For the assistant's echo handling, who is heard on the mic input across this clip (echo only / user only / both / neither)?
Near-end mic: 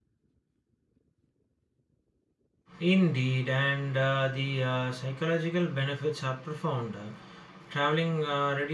user only